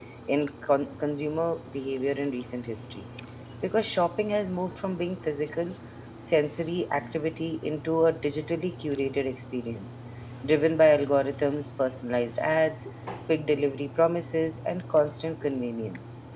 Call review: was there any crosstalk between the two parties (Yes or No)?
No